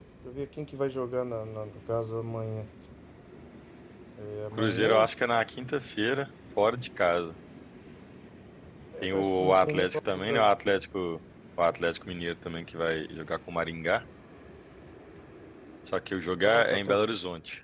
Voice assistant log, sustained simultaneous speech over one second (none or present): present